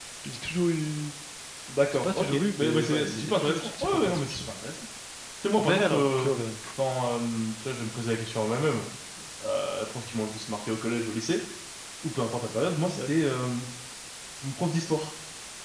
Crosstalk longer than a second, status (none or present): present